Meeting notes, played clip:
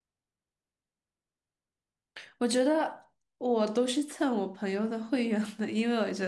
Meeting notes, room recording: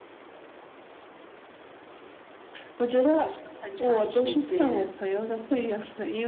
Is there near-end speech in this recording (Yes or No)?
Yes